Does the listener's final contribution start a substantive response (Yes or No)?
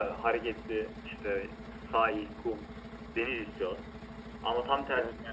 No